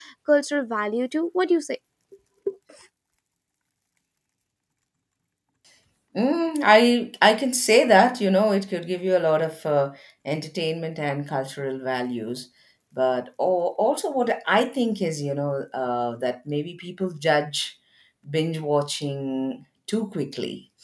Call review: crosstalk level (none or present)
none